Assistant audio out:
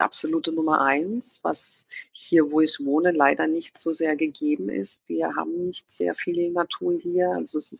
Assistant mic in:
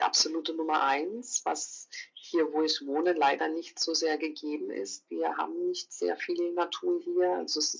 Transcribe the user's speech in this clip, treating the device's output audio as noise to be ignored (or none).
none